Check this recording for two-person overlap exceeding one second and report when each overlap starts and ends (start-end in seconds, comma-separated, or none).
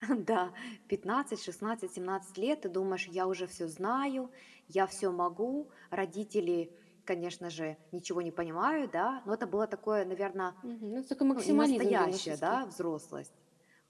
11.3-12.6